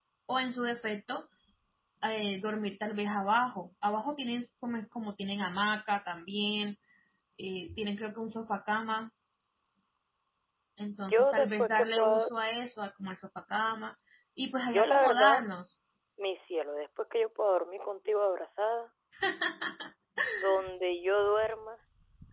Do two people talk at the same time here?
Yes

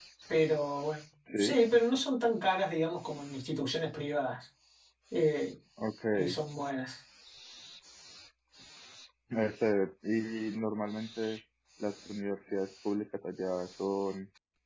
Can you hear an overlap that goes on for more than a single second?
No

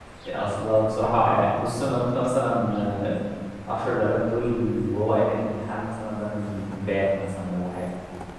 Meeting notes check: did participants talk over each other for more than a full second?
No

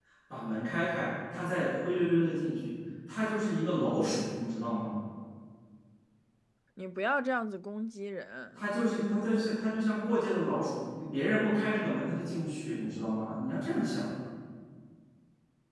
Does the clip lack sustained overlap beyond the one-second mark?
Yes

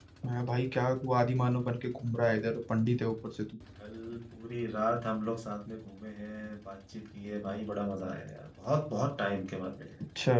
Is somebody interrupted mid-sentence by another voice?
No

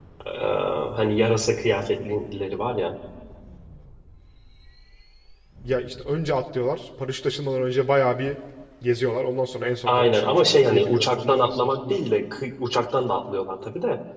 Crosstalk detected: Yes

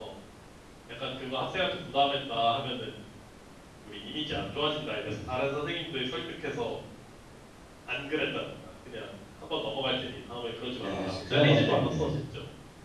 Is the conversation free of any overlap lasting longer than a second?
No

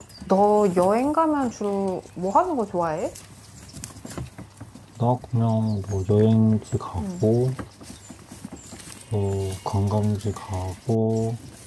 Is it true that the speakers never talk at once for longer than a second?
Yes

